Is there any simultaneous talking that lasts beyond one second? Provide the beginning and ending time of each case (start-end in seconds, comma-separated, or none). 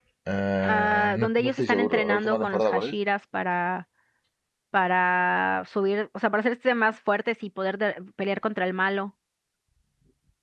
0.6-2.9